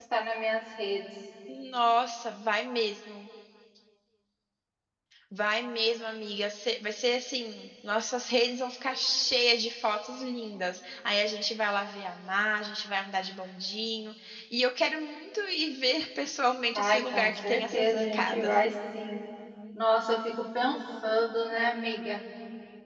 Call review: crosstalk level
present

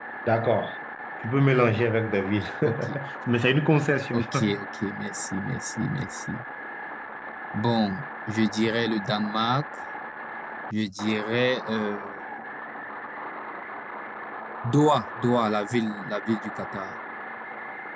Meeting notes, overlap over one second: none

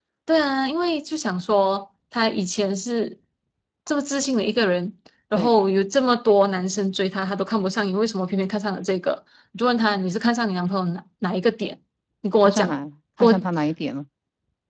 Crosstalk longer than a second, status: none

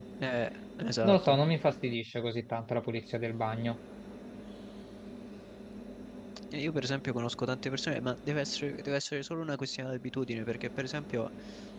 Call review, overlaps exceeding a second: none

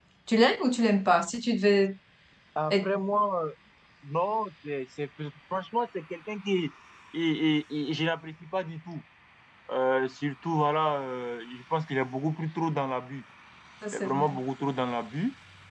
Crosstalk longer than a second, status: none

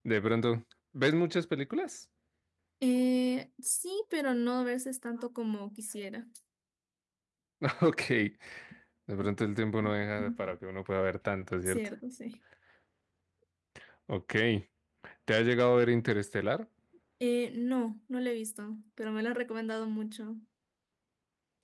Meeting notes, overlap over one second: none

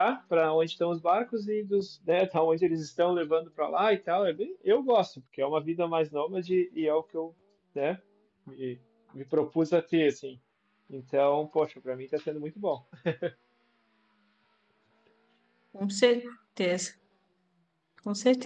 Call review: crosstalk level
none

